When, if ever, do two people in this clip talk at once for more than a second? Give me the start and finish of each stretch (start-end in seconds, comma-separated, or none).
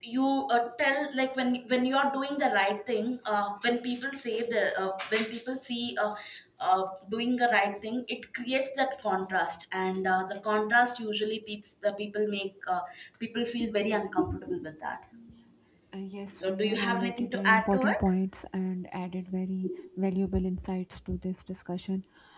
16.3-18.0